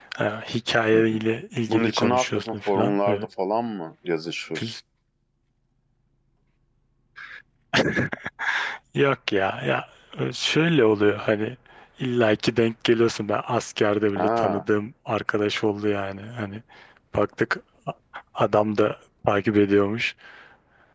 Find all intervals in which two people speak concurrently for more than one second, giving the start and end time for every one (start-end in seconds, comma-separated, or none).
1.7-3.3